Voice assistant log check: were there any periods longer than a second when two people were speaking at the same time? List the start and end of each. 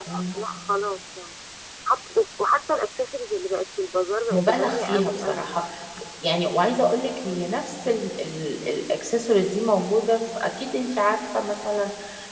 4.3-5.6

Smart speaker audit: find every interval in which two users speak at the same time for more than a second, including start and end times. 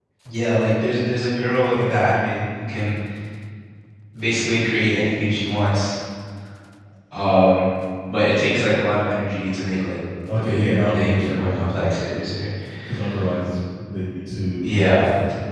10.4-11.7

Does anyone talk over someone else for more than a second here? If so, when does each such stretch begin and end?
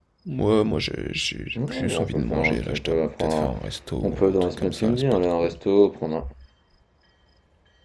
1.7-3.5, 4.0-5.5

